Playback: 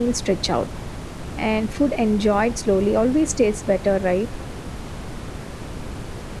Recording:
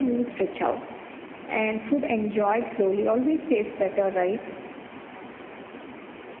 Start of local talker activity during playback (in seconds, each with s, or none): none